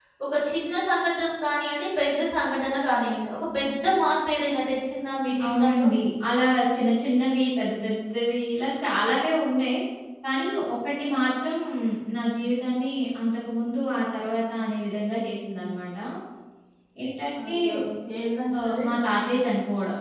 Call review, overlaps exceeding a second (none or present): none